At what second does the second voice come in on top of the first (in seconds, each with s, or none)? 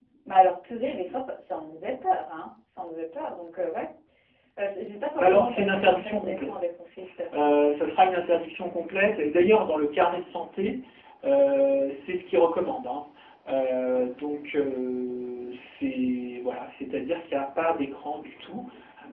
5.2 s